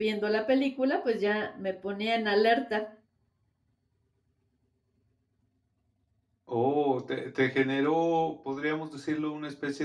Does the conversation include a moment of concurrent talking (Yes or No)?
No